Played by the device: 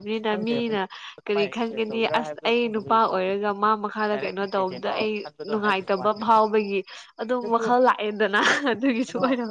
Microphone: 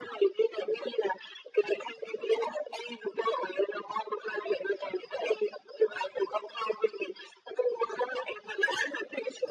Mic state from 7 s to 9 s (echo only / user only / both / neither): echo only